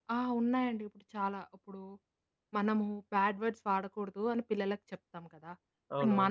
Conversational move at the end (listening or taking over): listening